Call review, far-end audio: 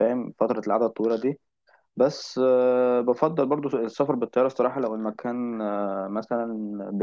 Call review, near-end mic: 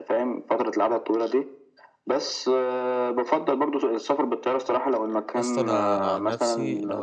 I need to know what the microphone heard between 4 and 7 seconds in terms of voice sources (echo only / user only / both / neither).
both